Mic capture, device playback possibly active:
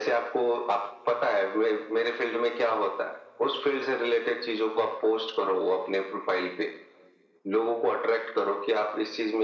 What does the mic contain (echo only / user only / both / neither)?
echo only